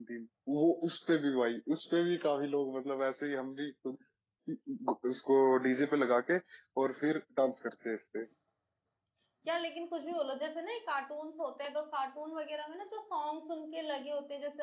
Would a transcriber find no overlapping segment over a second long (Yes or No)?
Yes